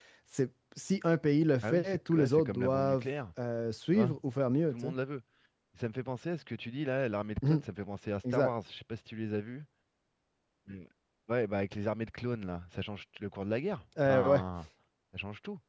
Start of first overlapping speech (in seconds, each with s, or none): 1.6 s